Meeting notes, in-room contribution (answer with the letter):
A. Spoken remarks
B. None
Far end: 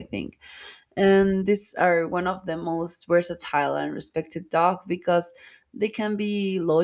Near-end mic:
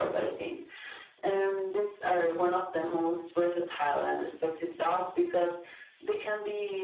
B